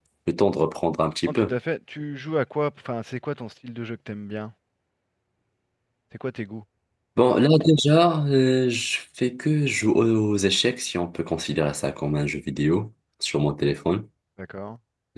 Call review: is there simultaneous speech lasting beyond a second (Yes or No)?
No